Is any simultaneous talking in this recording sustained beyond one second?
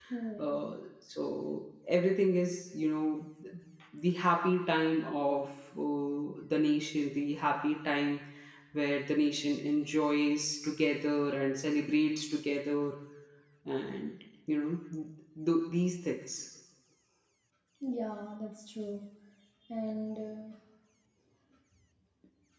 No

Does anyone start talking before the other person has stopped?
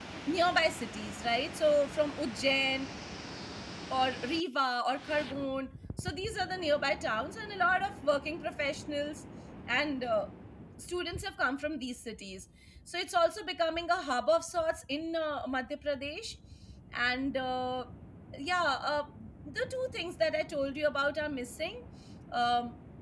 No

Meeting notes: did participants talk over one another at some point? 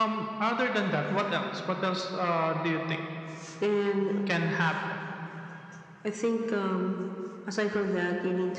No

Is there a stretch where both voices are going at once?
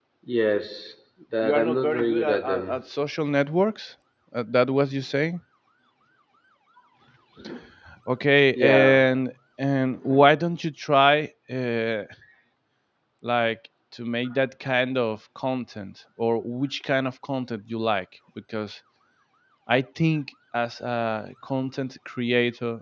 Yes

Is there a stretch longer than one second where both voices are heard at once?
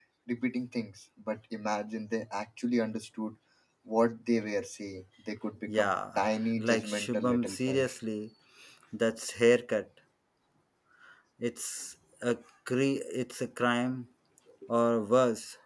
Yes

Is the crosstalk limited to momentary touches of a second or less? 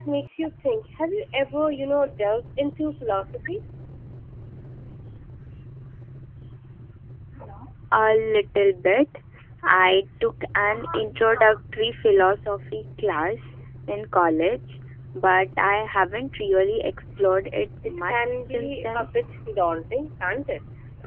No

